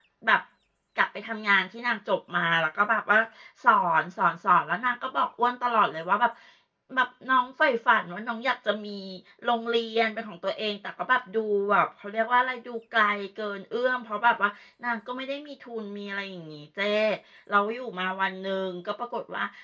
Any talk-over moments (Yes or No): No